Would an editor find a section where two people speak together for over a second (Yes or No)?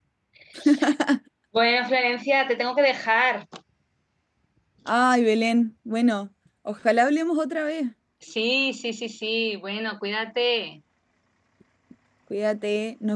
No